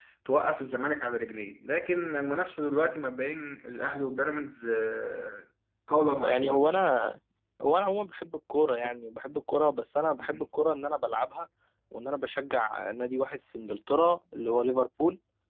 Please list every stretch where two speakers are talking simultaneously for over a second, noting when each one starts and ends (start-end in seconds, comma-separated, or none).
none